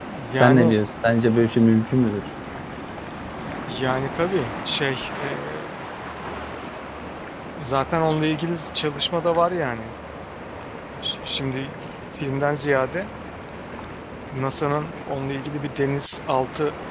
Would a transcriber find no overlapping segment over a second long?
Yes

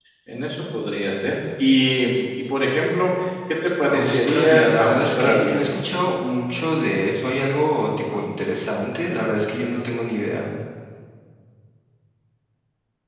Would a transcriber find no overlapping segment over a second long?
No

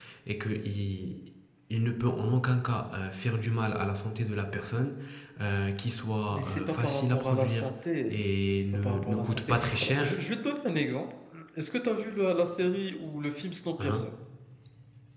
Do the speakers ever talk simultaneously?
Yes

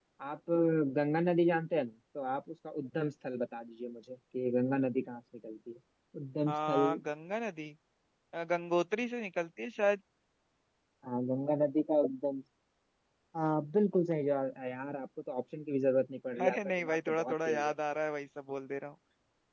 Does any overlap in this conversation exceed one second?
Yes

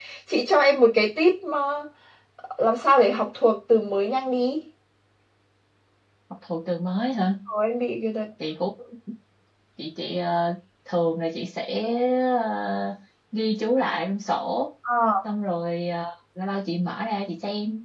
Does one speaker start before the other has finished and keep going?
No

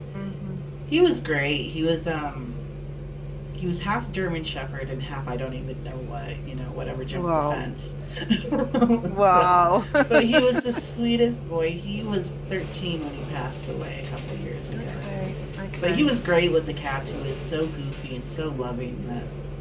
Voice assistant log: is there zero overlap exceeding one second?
Yes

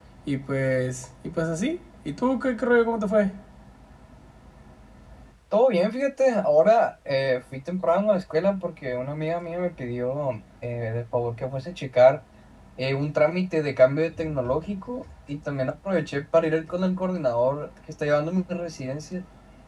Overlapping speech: No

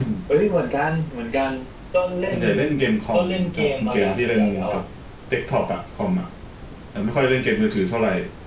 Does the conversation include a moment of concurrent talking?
Yes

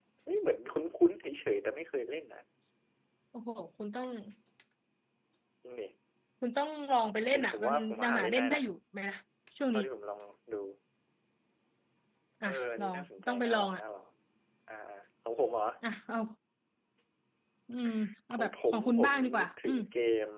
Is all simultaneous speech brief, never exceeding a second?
No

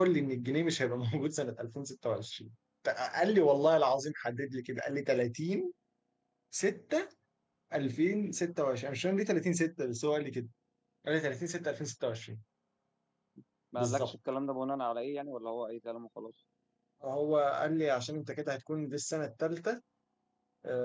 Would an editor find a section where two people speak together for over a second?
No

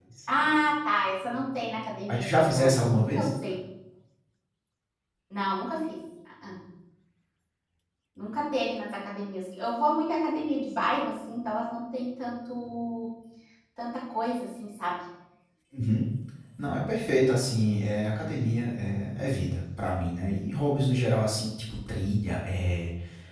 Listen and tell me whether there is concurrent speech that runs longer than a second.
Yes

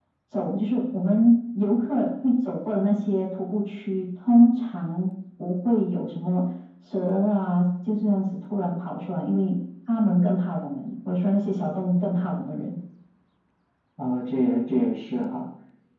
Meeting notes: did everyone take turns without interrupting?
Yes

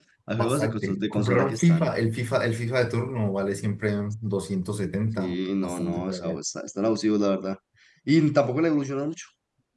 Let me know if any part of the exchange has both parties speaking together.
Yes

